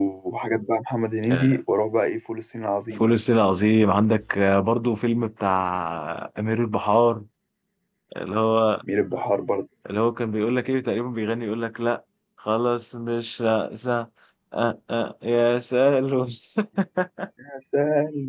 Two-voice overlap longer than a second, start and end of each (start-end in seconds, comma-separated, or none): none